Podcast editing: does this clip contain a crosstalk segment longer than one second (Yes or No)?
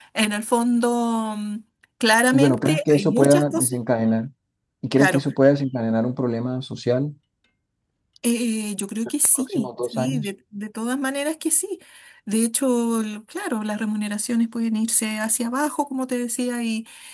Yes